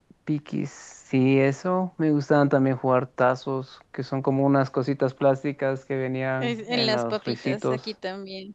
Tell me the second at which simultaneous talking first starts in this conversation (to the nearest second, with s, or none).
6 s